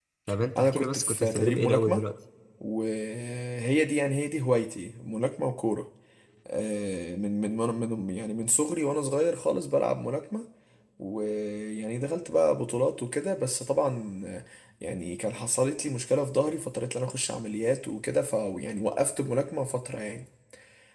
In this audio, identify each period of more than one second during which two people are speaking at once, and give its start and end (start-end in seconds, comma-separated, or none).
0.6-2.0